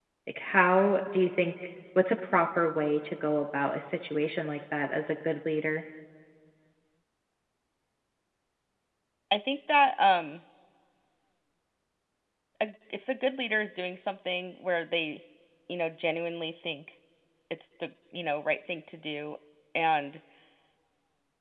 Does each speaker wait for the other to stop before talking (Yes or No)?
Yes